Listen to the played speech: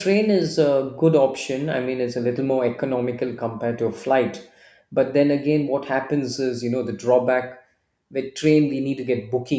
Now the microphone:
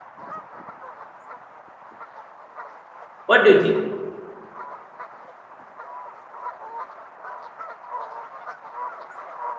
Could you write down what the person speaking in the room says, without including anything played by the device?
What do you think?

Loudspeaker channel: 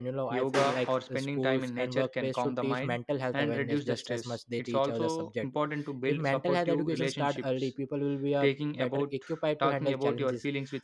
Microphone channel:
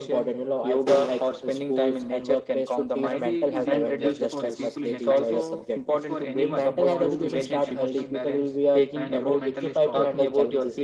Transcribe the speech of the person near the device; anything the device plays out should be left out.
therapy isn't just for people in a crisis it's for anyone who wants to maintain emotional balance and grow mentally strong

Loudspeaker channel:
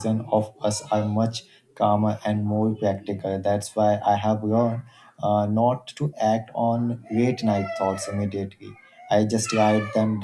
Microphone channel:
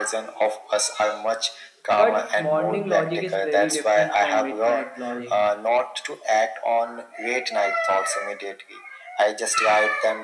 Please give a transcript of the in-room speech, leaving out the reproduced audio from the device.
but morning logic is very different from midnight logic.

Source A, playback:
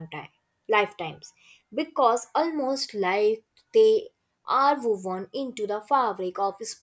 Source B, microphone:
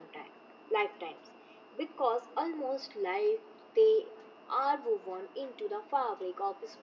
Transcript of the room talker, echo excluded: none

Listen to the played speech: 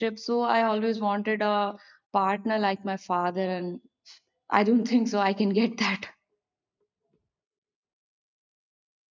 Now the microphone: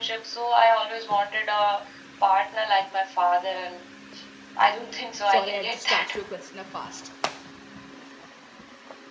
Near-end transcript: sorry i just asked you a question uh, fast

